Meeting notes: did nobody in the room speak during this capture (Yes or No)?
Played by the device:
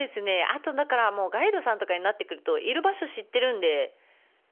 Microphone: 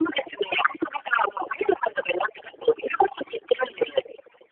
Yes